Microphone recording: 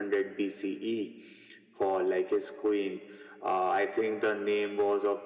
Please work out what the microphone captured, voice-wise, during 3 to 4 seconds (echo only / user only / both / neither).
echo only